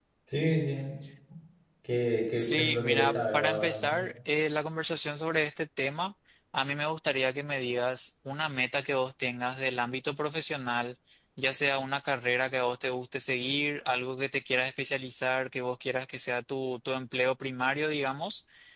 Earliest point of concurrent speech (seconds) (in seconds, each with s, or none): 2.4 s